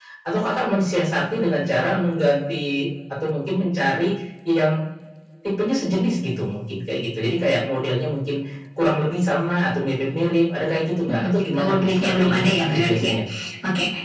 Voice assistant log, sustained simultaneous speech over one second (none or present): present